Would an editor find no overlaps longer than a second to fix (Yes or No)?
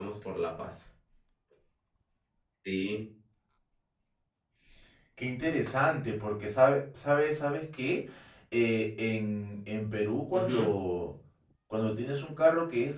Yes